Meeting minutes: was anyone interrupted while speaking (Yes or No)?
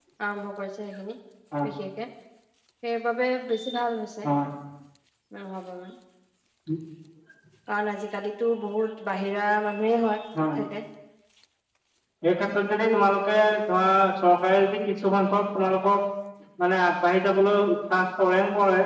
No